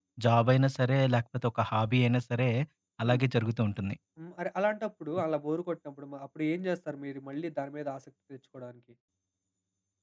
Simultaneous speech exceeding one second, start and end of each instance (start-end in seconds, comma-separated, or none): none